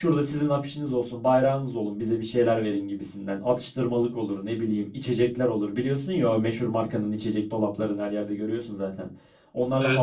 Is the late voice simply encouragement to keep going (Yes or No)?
Yes